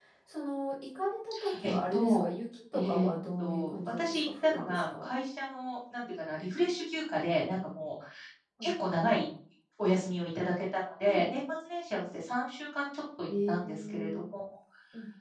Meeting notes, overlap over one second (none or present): present